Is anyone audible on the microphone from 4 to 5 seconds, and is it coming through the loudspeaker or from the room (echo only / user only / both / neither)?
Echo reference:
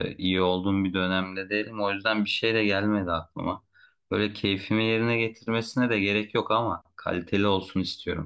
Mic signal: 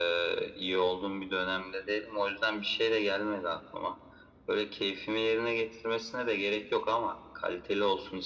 echo only